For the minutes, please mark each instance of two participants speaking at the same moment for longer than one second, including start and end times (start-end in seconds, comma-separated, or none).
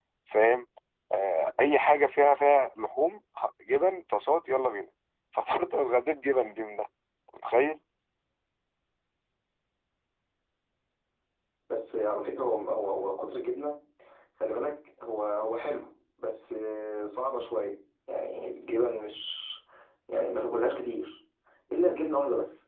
none